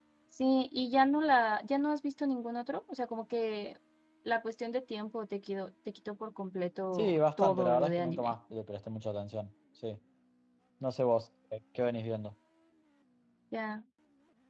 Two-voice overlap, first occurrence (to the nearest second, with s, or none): 7 s